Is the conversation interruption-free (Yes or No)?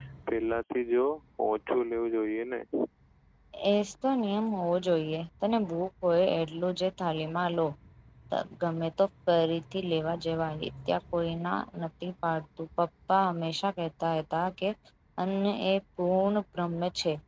Yes